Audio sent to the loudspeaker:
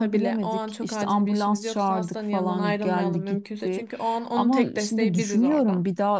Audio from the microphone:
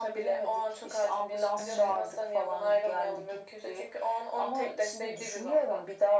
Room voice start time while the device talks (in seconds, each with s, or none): 1.6 s